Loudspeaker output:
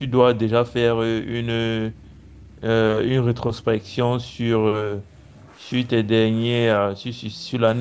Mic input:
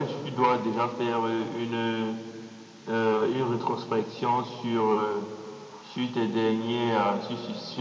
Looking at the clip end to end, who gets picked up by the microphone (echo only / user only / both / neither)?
echo only